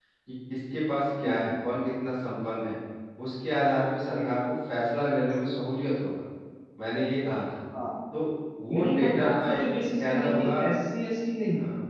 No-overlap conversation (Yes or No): No